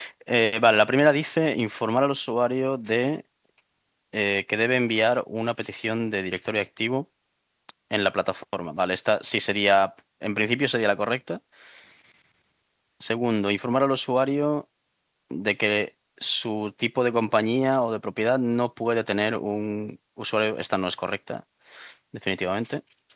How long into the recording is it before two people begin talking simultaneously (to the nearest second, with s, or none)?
none